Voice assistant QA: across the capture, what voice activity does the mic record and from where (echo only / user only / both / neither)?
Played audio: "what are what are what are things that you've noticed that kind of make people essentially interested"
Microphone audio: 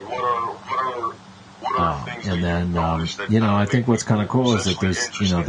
both